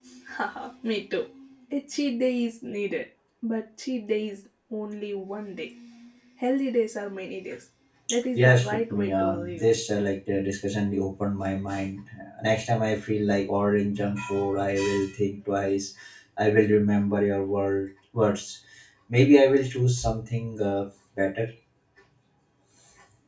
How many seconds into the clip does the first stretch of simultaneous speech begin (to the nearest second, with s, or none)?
8 s